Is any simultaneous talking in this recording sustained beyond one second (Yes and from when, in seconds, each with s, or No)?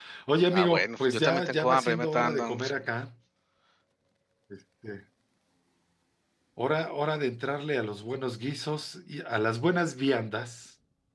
Yes, from 0.5 s